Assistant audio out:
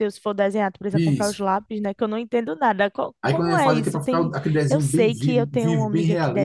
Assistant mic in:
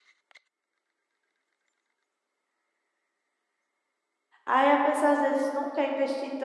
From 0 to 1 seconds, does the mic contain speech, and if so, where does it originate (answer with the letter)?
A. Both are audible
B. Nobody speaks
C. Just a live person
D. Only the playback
B